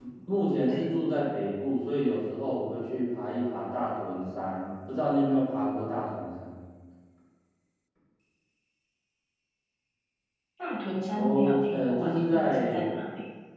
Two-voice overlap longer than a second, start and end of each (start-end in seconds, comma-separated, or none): 11.2-12.8